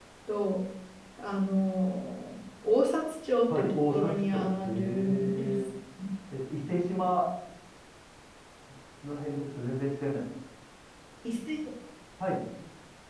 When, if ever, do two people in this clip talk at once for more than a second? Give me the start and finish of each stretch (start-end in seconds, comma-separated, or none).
3.5-5.5